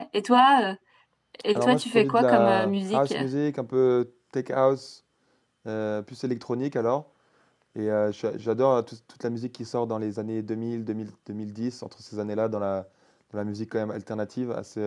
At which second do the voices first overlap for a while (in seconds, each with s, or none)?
1.6 s